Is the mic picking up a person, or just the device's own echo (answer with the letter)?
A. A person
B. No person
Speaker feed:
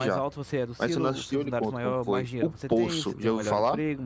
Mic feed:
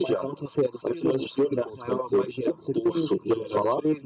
B